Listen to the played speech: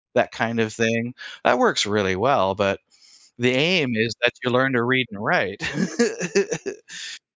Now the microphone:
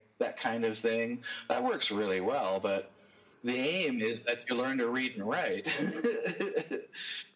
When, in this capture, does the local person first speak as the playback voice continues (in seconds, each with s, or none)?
none